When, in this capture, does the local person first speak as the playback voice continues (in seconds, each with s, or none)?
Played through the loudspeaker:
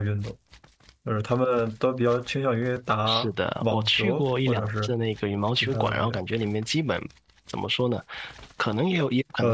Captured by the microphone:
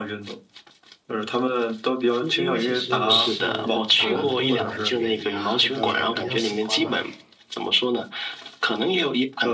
2.2 s